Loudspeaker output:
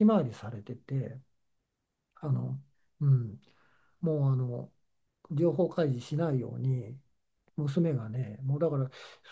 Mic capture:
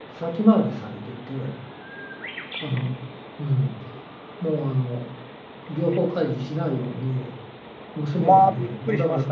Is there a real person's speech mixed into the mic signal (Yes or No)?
Yes